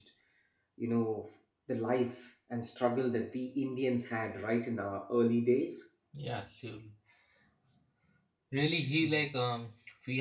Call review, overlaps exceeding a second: none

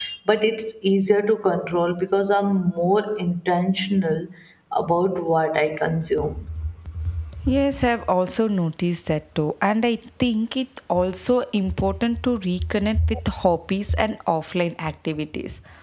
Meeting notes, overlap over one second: none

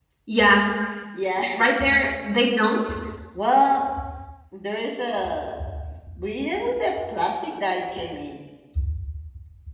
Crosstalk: none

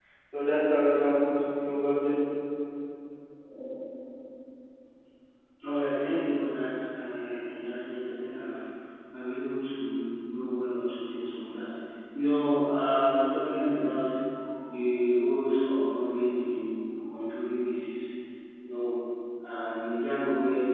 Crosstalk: none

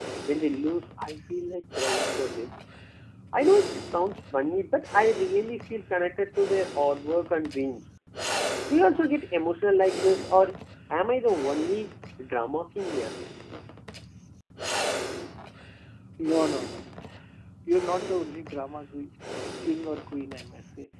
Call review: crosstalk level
none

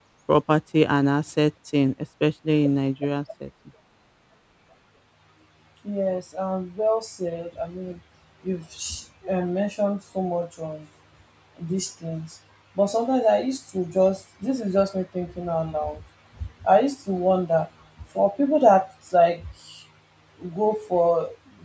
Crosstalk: none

